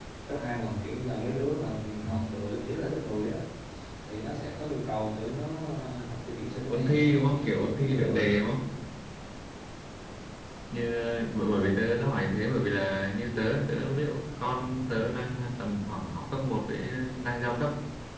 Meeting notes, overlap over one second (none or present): present